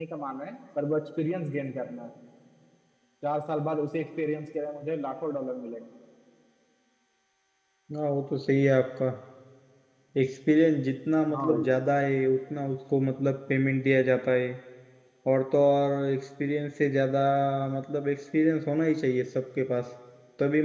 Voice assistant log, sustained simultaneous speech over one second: none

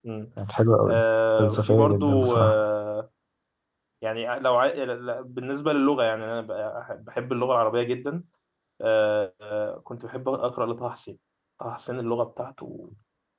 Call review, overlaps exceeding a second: present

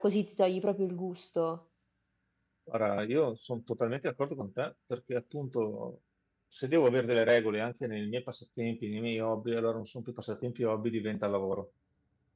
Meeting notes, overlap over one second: none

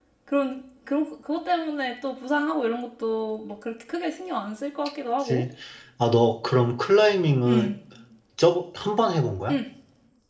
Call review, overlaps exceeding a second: none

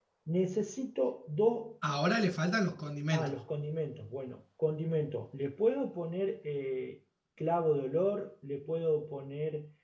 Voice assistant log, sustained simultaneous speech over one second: none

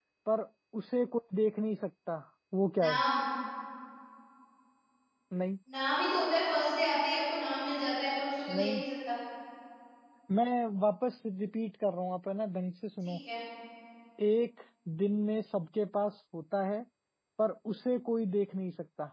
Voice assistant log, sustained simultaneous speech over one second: none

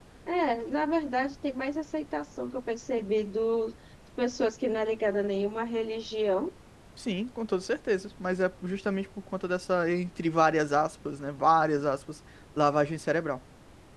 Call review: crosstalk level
none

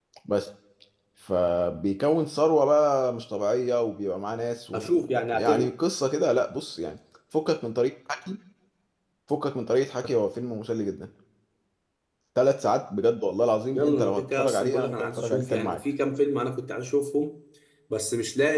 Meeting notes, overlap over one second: present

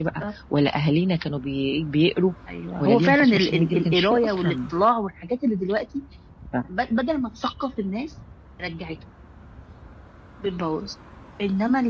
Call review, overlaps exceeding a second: present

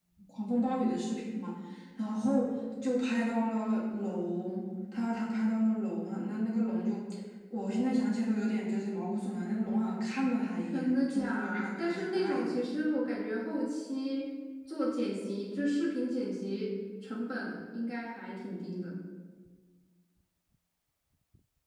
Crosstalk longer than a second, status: present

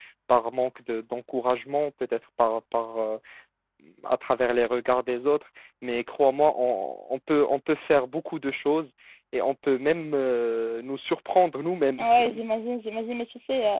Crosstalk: none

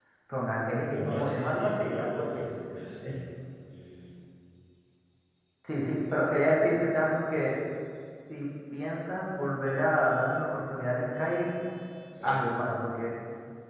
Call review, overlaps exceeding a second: present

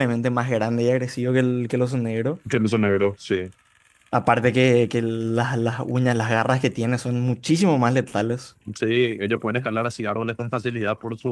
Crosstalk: none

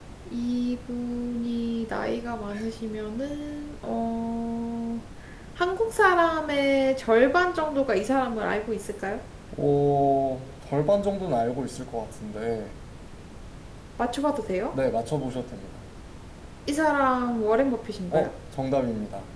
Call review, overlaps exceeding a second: none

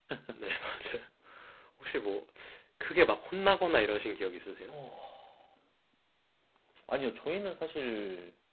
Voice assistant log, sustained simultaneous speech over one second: none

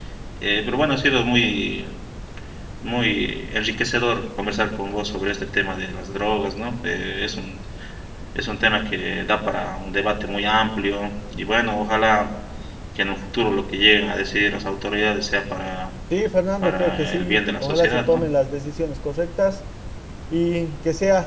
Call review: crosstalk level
present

